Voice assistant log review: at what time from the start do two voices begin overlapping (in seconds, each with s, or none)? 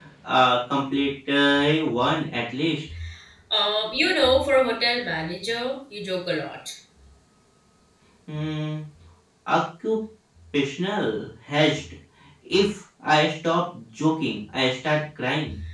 none